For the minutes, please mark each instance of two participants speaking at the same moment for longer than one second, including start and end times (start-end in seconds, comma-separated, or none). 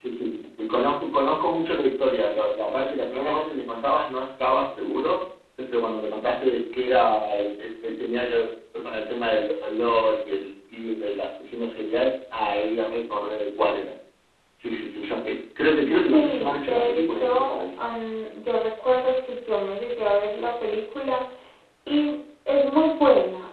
15.9-17.6